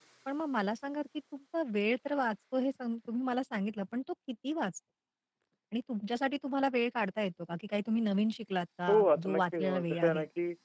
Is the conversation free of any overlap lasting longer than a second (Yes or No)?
No